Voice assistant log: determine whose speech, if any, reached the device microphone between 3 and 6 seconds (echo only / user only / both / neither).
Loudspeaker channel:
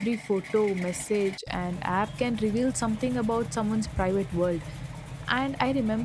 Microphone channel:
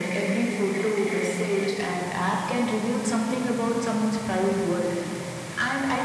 echo only